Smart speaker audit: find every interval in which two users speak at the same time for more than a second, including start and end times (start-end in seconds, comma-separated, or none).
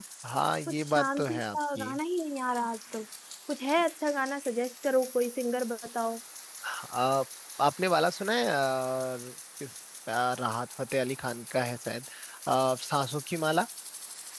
0.7-1.9